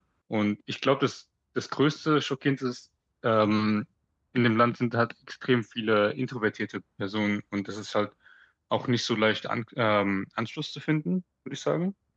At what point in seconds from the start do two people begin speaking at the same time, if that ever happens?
none

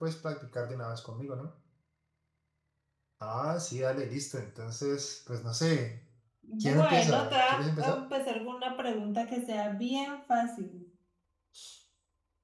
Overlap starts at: 6.6 s

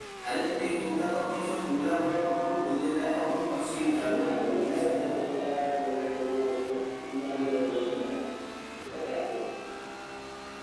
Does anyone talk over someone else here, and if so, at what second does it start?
3.7 s

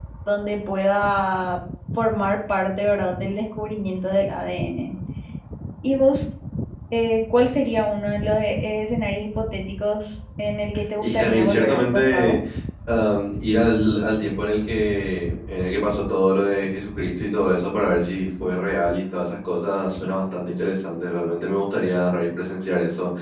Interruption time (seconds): 11.0 s

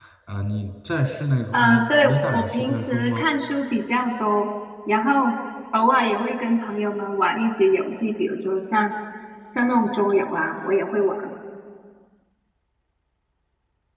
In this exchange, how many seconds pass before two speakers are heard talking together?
1.5 s

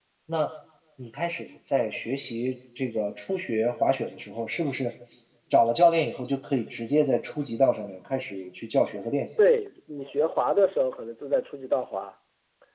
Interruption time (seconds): none

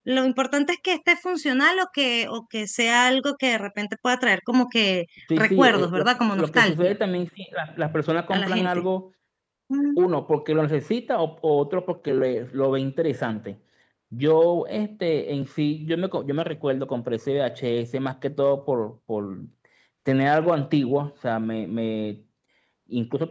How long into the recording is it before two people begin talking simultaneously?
5.4 s

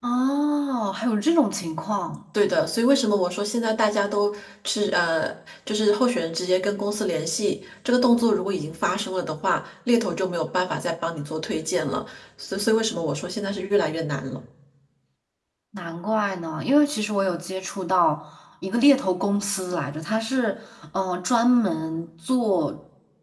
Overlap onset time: none

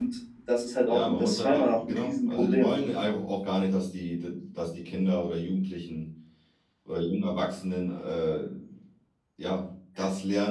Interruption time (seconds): 0.8 s

